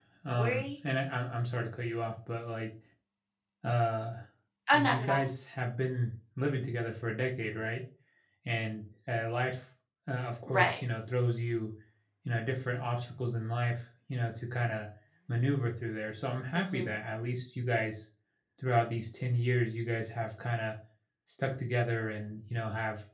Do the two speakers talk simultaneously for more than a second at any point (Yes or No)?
No